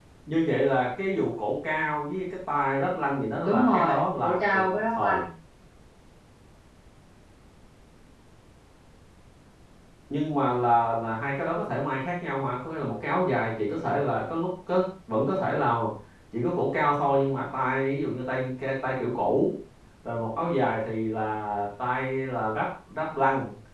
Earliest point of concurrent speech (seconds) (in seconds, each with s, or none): 3.4 s